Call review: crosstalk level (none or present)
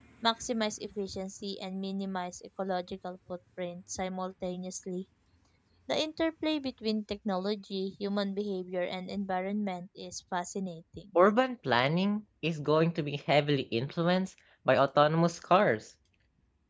none